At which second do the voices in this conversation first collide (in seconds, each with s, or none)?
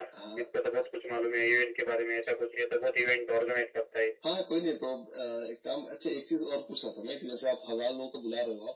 none